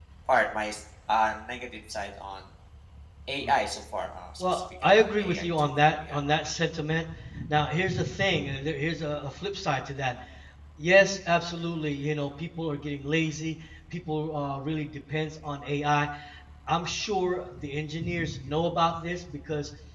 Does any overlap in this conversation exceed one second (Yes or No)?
Yes